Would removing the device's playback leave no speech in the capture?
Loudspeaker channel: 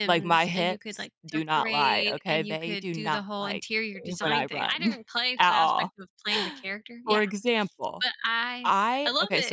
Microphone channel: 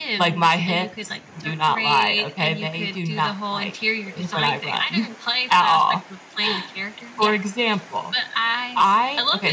Yes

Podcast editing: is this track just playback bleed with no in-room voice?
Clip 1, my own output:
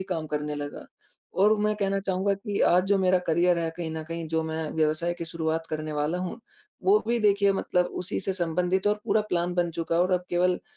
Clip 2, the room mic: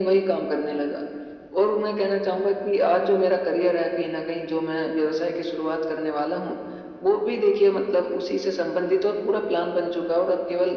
Yes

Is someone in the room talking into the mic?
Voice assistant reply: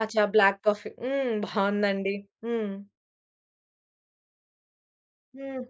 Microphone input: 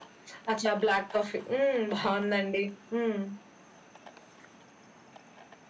No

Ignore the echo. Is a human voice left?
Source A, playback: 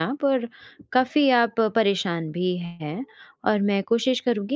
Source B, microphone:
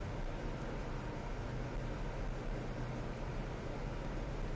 No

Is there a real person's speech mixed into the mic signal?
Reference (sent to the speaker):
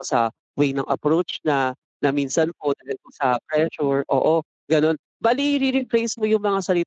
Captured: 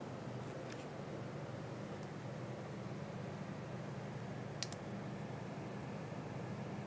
No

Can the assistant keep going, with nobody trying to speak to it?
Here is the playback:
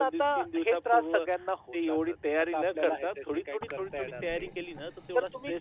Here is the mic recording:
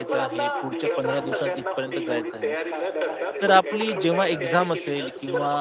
No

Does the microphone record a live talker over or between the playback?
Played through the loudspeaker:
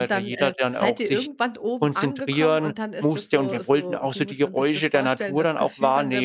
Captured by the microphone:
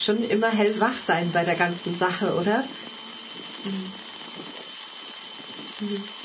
Yes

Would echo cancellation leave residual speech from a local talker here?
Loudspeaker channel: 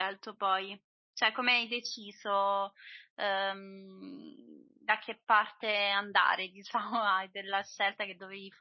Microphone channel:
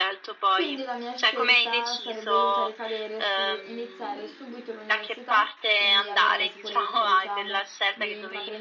Yes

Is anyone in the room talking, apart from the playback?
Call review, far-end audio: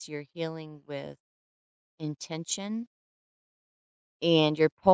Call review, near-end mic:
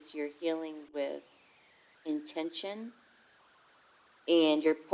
No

